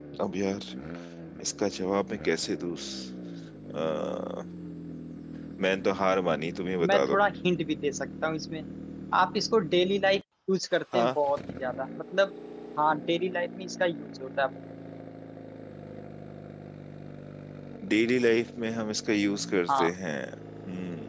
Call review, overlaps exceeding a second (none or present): none